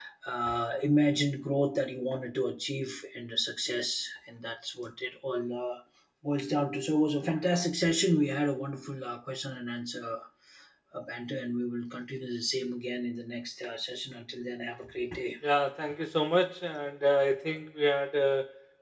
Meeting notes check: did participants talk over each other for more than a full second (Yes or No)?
No